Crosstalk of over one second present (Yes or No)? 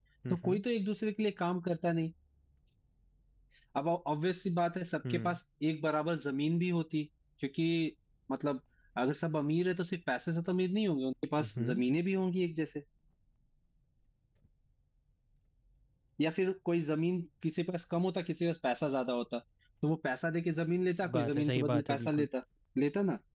Yes